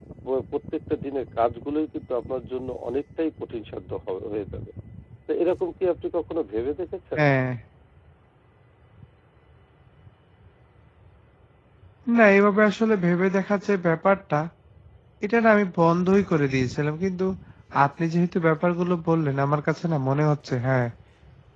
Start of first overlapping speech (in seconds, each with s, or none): none